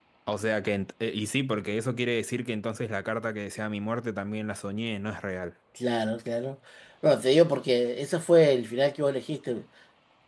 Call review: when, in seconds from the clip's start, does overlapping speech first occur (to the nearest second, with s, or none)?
none